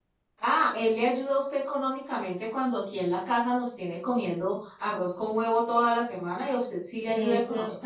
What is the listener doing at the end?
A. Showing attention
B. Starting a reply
B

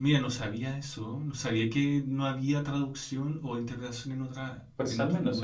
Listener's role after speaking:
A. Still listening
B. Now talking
B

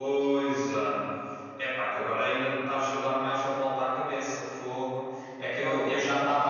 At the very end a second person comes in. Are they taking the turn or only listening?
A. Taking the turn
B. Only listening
B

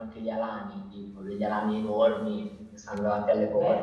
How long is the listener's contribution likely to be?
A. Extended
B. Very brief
A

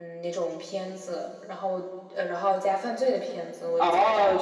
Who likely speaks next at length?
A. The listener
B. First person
A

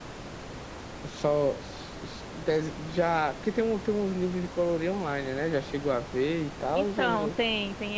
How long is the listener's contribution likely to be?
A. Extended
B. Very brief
A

